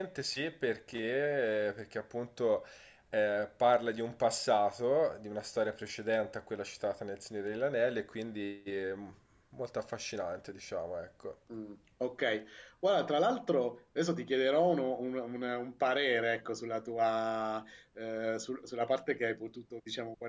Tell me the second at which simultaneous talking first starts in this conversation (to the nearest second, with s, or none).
none